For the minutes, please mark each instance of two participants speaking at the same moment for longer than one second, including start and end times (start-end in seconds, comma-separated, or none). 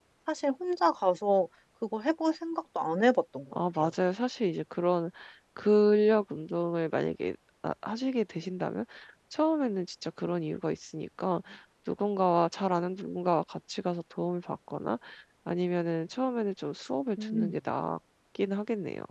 none